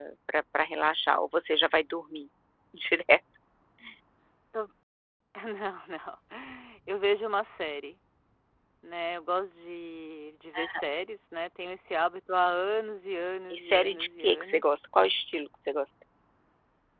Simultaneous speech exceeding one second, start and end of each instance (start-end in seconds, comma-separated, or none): 13.5-14.8